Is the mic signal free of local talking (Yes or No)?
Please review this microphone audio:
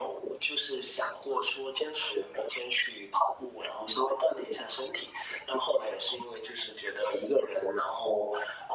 Yes